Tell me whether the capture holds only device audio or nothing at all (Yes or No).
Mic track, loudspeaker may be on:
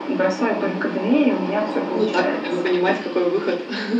No